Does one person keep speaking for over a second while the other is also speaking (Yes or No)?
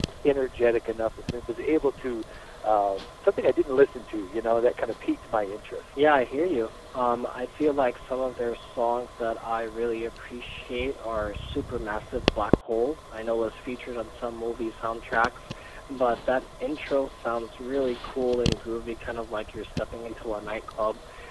No